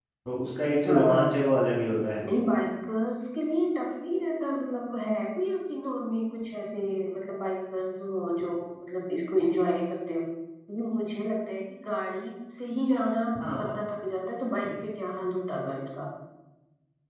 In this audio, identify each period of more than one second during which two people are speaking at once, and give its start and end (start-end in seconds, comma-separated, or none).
none